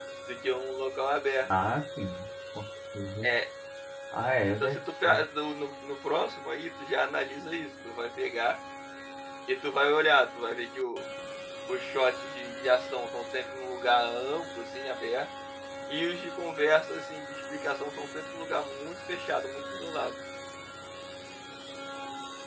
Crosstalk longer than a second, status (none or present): none